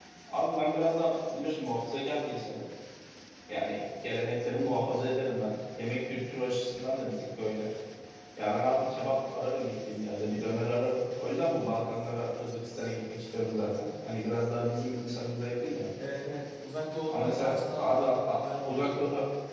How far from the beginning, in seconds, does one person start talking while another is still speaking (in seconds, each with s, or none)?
17.1 s